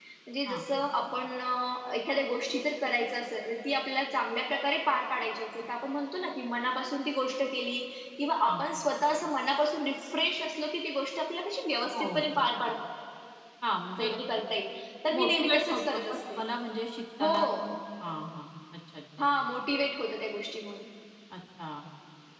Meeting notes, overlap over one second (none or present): present